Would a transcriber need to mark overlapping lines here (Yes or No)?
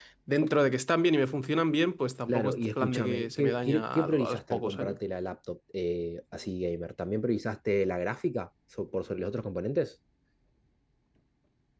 Yes